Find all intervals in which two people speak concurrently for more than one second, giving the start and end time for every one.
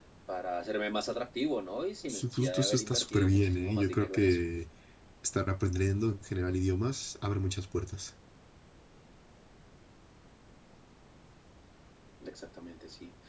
2.1-4.4

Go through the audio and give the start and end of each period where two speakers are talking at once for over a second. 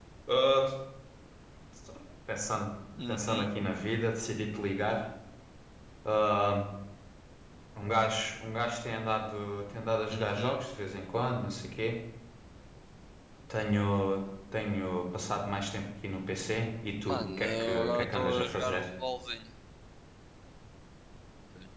17.1-18.8

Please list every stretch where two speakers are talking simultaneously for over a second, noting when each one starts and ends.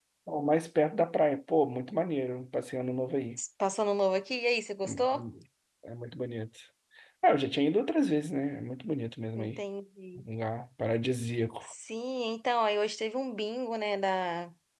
none

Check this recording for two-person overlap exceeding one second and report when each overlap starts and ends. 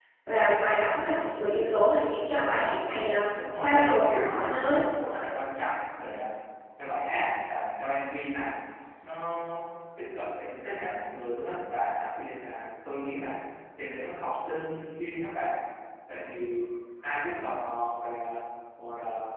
3.6-4.8

